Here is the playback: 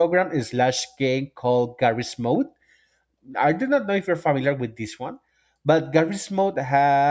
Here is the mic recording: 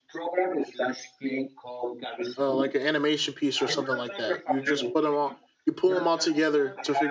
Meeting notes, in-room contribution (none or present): present